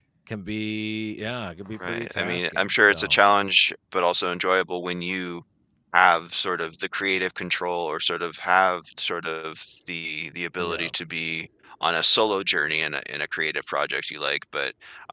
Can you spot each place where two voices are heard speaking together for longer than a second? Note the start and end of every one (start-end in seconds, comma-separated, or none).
1.8-3.2